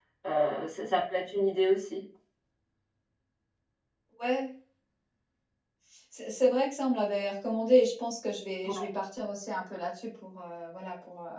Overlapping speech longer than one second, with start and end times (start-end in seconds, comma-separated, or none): none